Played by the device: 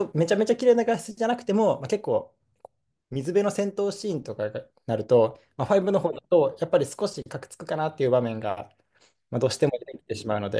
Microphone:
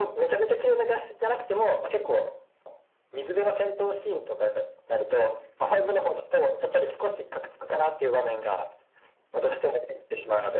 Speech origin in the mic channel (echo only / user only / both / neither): echo only